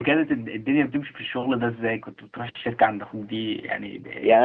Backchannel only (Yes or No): No